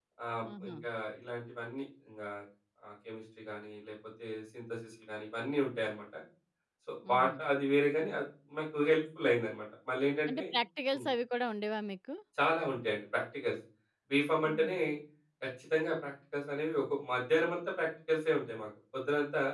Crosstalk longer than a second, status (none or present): none